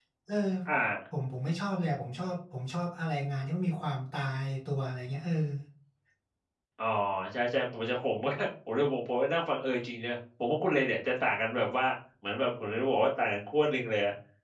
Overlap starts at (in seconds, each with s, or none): none